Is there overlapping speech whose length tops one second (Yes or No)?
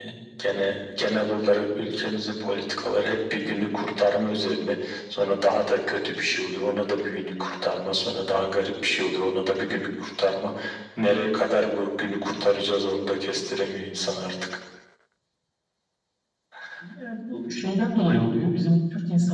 No